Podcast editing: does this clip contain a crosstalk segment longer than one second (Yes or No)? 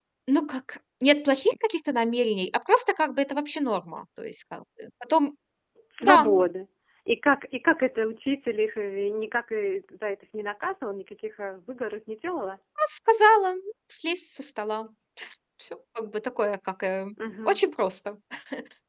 No